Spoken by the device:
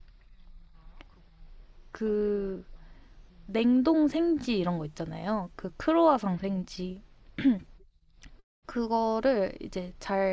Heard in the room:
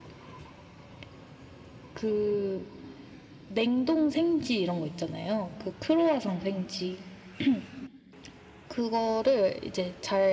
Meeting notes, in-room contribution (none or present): none